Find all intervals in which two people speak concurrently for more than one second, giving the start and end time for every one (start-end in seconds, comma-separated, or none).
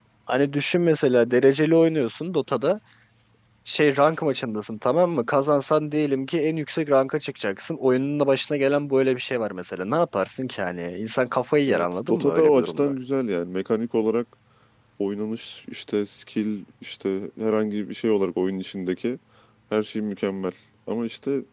11.7-12.9